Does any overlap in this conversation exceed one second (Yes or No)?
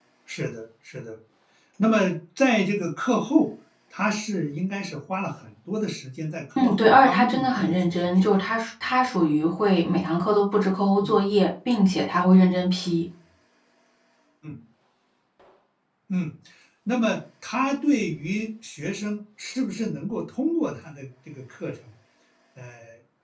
Yes